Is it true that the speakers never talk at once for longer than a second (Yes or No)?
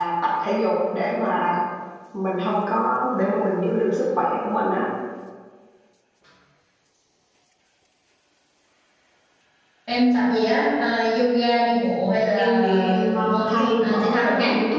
No